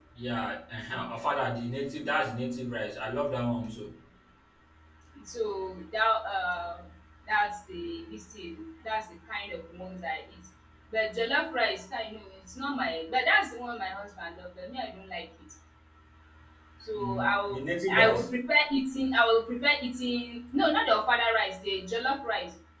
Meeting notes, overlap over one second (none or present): present